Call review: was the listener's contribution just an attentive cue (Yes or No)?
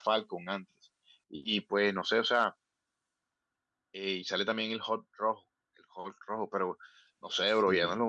Yes